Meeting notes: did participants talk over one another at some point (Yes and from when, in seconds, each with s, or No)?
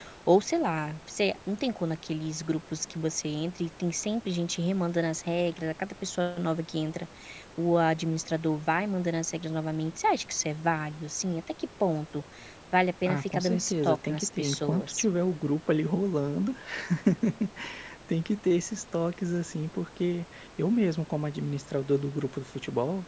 Yes, from 13.1 s